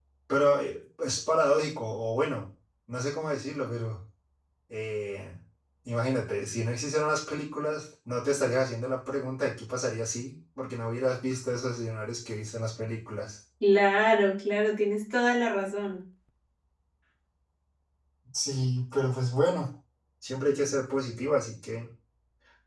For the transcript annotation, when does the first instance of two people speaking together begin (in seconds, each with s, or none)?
none